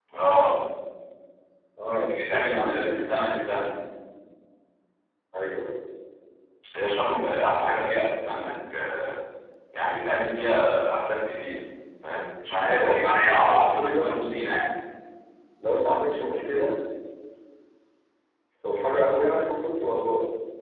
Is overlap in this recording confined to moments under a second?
No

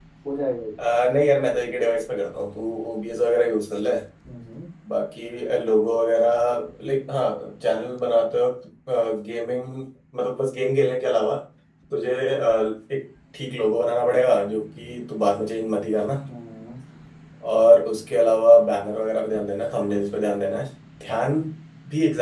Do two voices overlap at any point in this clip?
No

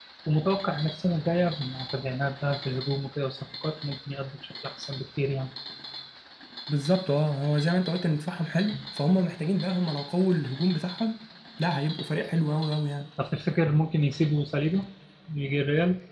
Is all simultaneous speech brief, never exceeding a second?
Yes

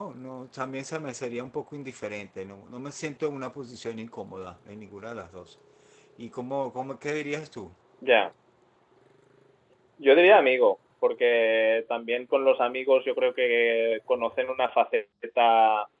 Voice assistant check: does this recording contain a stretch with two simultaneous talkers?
No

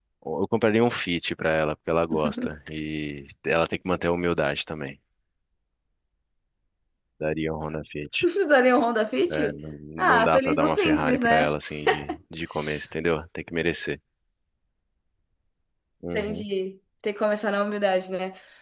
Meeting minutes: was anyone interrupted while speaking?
Yes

